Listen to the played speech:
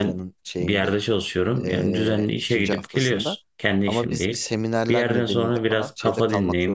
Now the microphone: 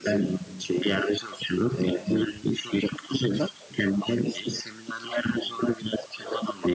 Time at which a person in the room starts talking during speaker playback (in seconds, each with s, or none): none